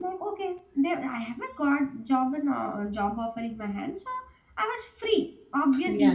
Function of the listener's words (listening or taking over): listening